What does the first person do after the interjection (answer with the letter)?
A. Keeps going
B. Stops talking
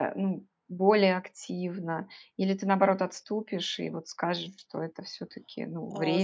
B